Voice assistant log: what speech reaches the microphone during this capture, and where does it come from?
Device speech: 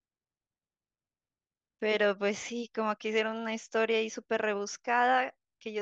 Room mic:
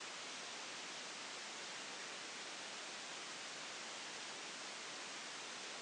neither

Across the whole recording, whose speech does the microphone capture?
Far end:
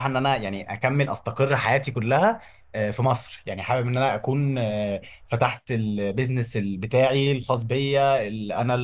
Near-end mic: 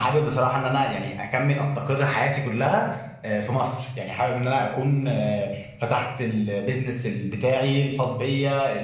echo only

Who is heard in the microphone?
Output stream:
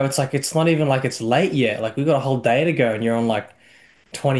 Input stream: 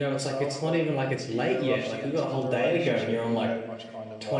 both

